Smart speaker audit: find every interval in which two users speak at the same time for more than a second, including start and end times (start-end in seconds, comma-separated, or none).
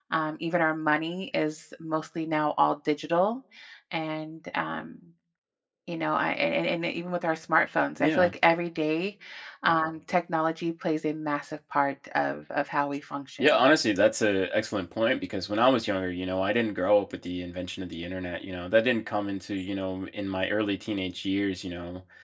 none